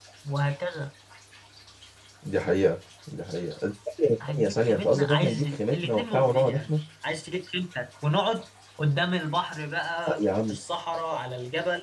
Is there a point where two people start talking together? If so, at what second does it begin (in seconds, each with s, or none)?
4.3 s